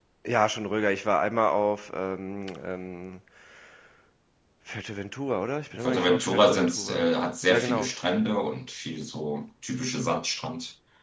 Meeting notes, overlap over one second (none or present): present